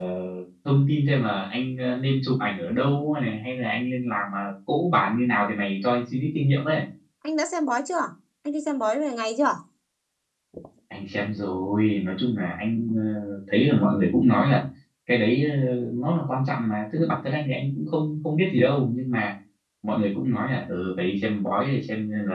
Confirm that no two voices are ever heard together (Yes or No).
Yes